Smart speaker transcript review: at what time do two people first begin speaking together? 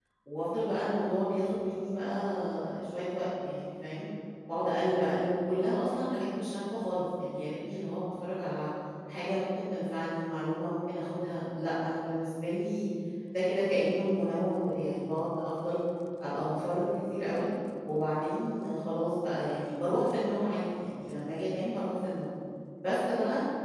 none

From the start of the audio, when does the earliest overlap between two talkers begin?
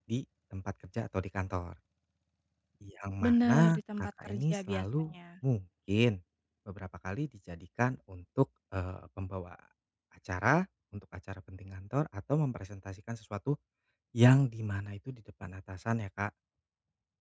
3.2 s

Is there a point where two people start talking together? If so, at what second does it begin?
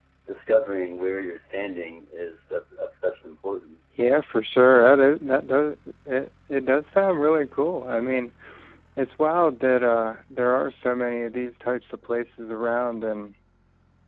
none

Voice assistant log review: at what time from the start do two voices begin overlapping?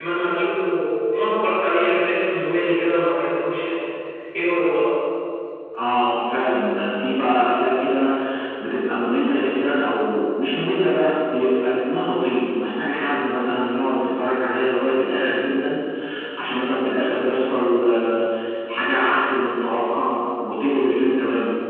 none

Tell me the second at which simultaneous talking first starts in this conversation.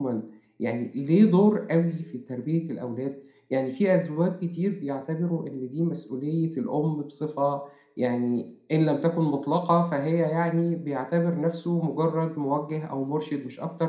none

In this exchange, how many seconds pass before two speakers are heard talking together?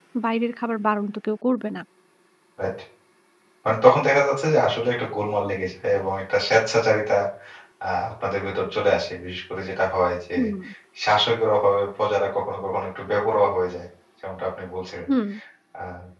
none

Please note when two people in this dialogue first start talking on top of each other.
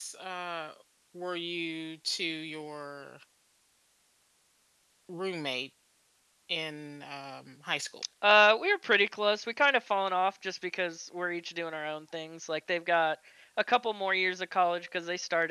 none

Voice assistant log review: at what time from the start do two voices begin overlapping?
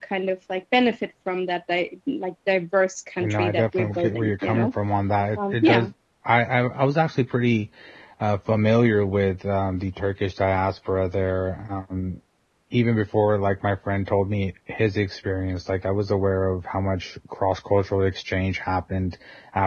3.2 s

